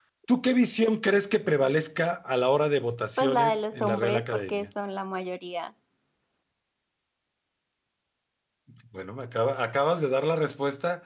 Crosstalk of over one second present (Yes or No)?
Yes